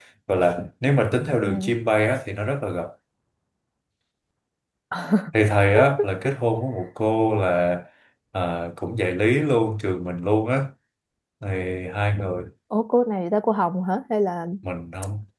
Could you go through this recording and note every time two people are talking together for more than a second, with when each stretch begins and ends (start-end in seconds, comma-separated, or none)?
none